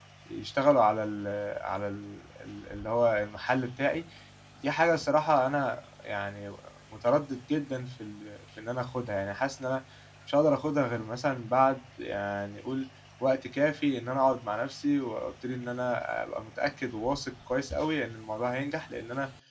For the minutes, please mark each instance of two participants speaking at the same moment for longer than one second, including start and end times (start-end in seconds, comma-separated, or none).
none